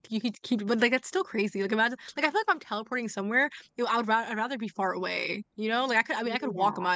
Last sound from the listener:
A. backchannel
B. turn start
A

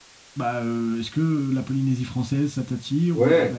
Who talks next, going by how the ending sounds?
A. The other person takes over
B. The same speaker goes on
A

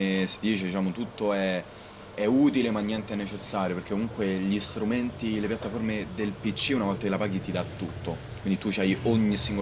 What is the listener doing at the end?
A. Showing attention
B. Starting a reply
A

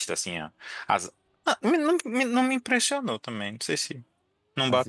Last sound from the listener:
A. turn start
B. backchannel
A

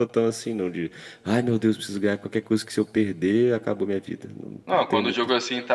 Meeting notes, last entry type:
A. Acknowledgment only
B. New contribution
B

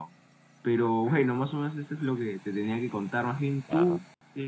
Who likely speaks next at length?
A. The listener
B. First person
B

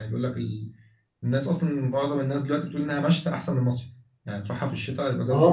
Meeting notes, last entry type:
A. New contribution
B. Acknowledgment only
A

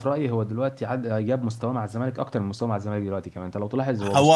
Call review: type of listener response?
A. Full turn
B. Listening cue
A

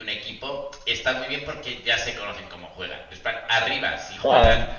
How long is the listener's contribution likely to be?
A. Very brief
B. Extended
A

